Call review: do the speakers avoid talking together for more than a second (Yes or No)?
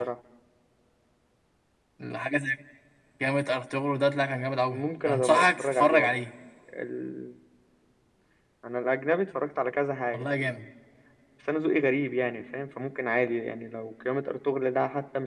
No